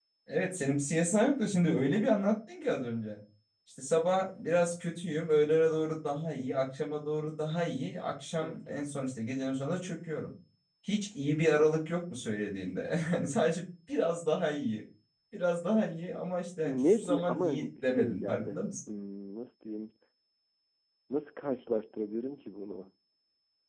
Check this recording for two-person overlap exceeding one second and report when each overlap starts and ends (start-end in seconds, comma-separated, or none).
16.6-18.6